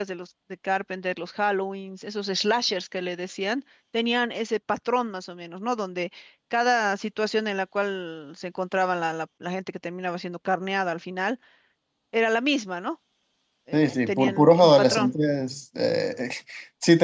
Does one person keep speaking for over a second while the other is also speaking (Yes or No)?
Yes